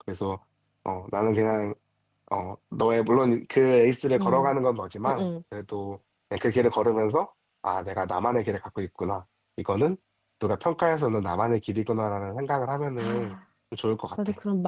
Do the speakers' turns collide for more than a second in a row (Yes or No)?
No